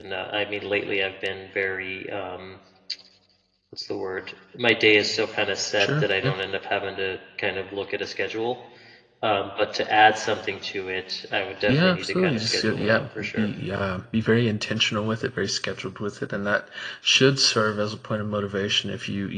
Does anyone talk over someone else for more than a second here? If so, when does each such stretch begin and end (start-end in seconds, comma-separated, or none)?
11.7-13.5